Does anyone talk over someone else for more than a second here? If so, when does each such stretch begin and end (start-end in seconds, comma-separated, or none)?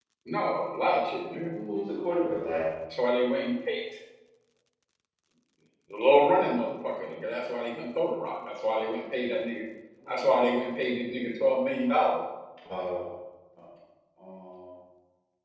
none